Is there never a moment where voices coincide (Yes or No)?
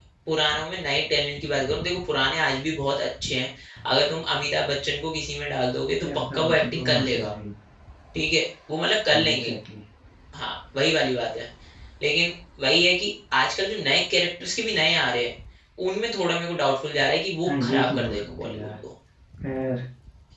No